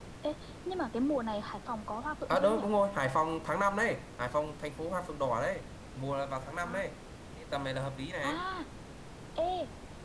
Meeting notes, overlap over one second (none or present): none